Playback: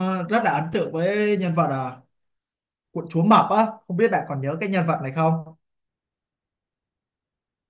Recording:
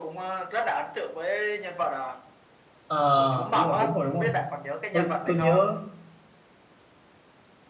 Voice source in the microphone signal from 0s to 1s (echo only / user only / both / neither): echo only